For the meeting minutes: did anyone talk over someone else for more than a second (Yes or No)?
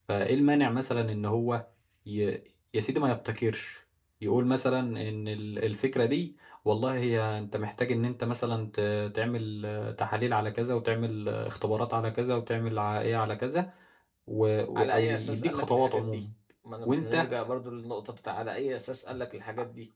Yes